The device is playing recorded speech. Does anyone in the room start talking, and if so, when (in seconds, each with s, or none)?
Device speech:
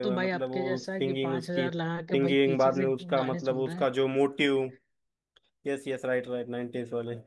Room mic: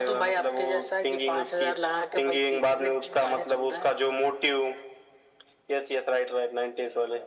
none